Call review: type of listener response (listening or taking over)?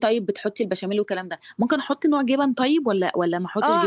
taking over